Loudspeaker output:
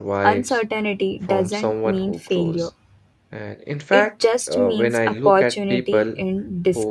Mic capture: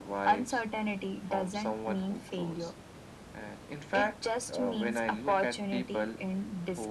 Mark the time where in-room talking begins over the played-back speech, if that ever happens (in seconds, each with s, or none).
none